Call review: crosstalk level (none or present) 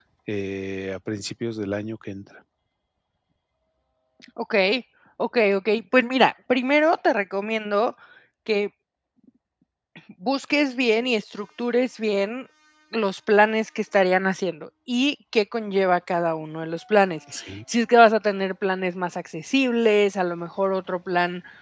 none